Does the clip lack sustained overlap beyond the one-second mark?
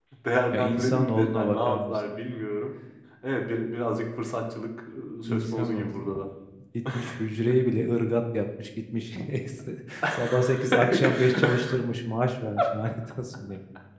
No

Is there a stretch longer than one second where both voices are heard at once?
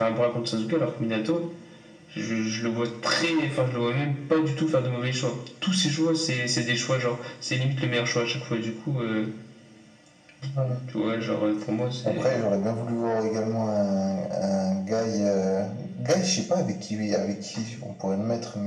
No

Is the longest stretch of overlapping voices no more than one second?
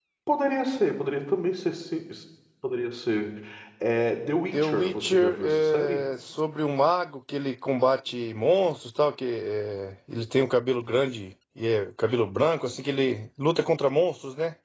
No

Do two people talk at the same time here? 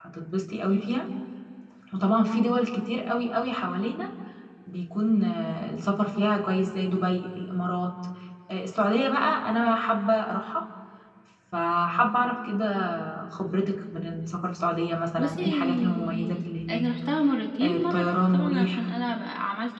Yes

